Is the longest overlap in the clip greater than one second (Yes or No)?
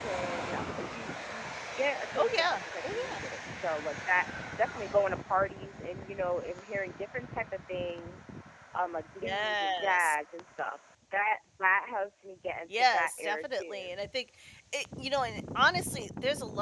Yes